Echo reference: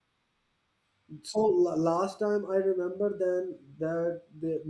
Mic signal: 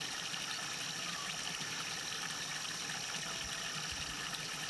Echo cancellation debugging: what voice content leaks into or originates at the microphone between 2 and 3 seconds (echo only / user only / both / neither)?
neither